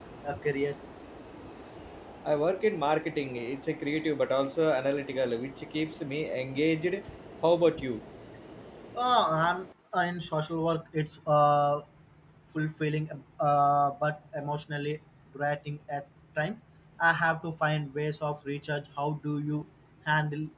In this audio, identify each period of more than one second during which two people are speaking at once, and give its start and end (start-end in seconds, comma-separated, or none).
none